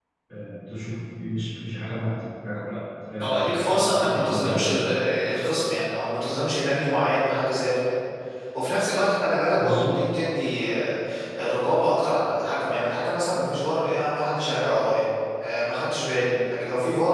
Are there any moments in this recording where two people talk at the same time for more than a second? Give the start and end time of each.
3.2-4.6

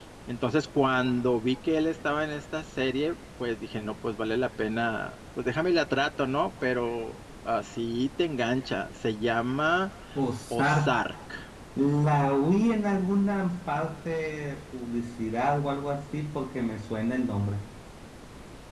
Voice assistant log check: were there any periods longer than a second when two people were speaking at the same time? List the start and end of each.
none

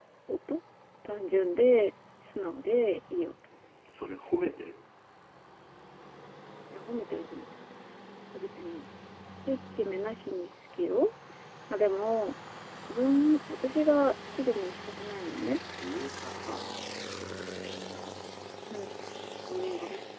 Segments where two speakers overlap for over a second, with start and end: none

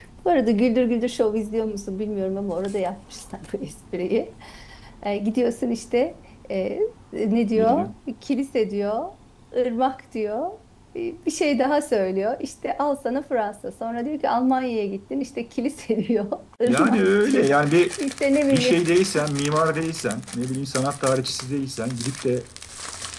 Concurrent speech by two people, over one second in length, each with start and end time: 16.7-17.9

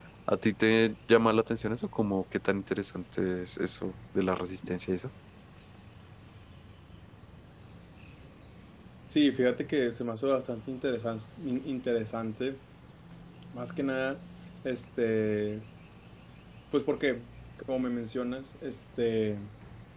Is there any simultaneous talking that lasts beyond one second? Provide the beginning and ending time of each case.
none

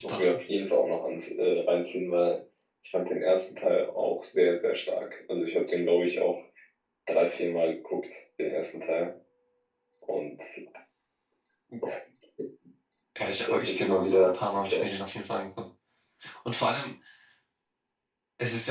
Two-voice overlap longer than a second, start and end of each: 13.5-15.0

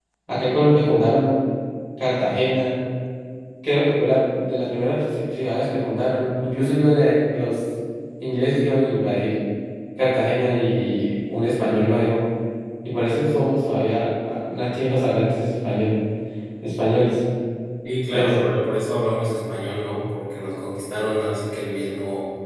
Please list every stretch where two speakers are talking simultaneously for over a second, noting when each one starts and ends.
none

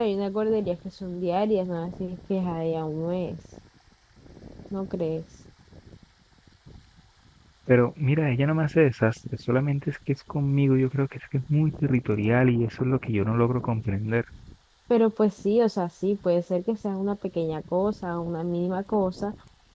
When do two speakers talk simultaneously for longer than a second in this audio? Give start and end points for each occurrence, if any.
none

